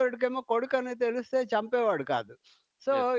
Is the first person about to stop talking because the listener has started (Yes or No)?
No